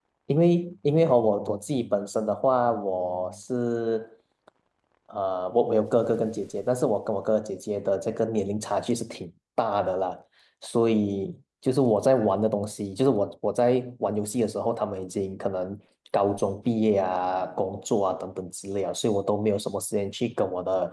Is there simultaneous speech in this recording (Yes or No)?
No